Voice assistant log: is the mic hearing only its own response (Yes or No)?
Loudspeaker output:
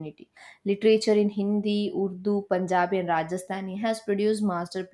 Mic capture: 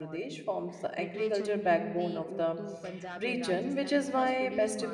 No